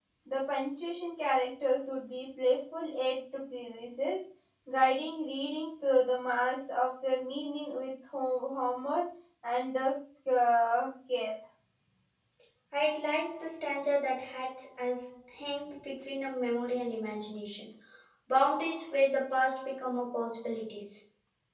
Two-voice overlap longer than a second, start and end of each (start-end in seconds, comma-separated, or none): none